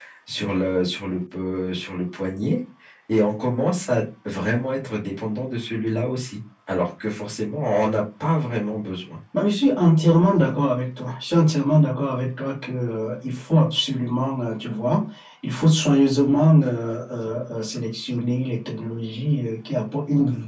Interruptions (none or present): none